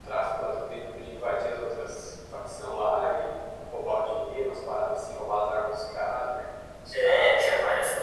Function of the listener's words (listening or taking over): taking over